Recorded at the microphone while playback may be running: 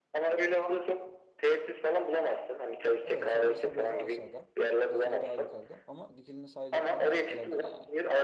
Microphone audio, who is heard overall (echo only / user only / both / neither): both